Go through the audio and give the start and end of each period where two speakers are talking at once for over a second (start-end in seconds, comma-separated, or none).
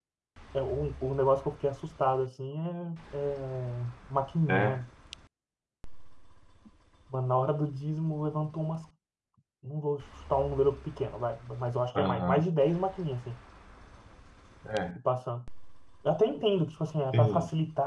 none